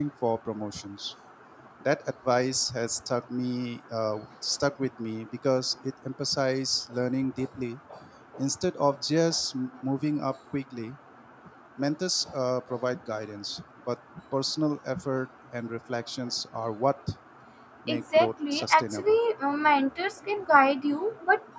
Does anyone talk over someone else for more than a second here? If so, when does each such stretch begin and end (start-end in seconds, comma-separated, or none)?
17.9-19.2